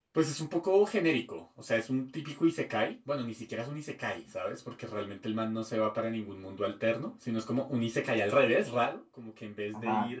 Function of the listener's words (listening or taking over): listening